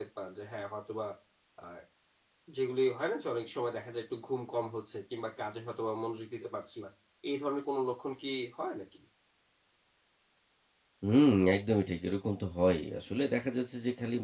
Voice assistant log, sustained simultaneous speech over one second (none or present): none